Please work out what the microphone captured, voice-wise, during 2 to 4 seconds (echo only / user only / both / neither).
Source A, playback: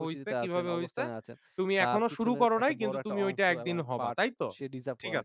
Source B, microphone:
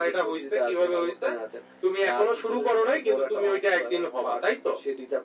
echo only